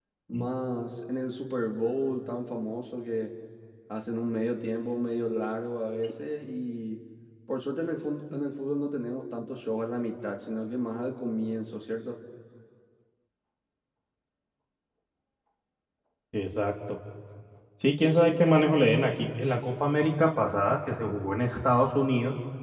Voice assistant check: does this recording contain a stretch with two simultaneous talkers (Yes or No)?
No